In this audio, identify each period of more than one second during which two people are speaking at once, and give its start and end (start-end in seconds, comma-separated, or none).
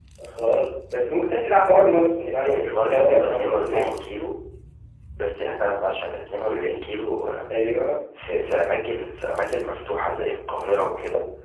2.5-3.9